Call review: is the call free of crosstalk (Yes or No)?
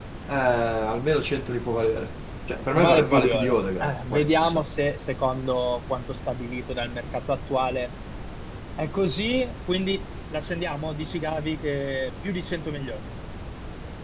No